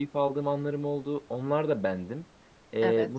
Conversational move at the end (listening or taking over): listening